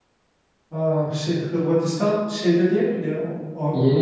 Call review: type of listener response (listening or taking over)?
taking over